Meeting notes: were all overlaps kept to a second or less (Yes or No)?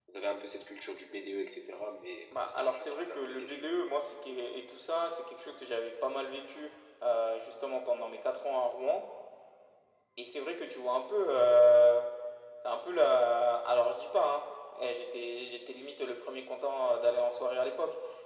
No